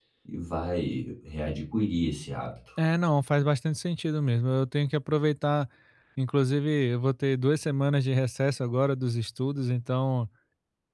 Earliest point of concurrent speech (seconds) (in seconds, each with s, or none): none